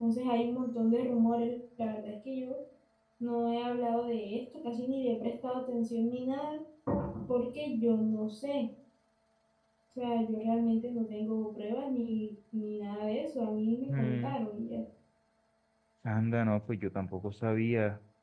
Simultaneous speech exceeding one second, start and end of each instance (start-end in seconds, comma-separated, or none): none